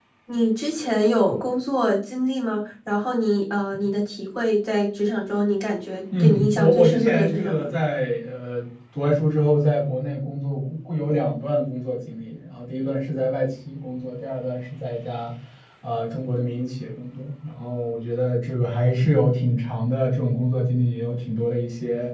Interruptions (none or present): present